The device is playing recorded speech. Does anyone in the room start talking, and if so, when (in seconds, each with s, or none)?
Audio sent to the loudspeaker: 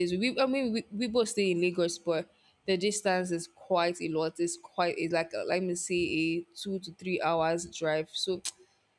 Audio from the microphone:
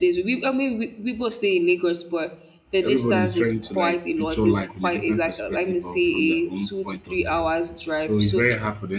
2.8 s